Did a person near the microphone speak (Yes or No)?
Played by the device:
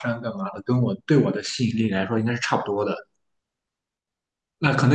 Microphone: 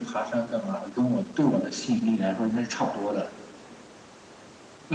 No